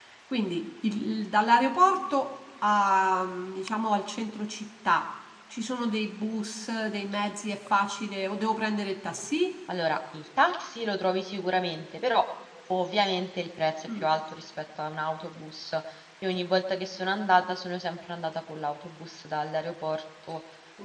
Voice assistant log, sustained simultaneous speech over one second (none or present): none